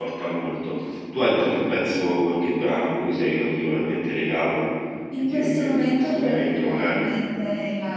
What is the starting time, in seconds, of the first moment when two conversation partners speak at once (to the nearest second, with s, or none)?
5 s